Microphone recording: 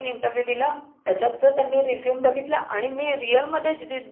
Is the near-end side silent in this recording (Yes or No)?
Yes